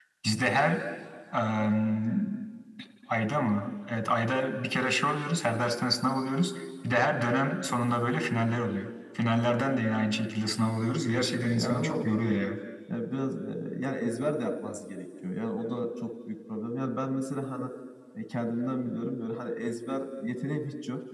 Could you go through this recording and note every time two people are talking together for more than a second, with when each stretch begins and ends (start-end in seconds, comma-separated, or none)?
11.2-12.4